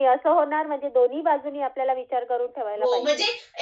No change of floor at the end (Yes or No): No